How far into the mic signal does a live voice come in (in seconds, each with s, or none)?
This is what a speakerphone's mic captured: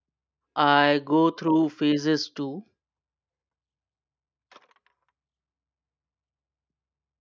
0.6 s